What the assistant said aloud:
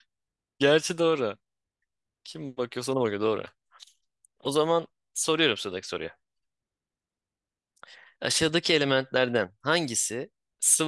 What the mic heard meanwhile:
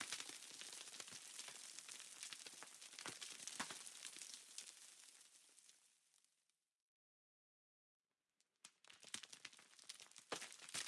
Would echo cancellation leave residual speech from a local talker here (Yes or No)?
No